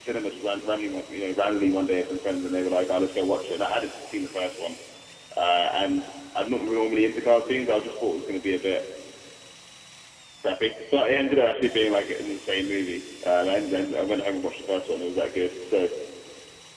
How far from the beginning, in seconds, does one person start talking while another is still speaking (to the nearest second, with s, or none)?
none